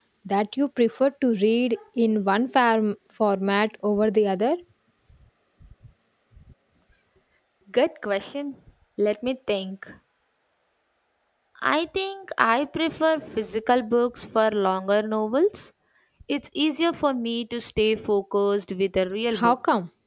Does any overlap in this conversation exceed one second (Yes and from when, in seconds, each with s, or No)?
No